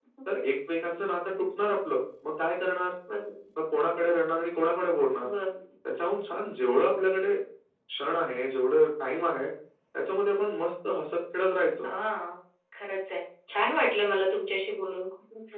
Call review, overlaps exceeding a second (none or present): none